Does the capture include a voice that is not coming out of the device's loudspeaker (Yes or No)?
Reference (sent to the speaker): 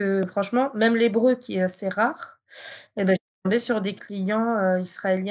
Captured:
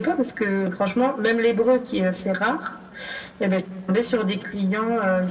No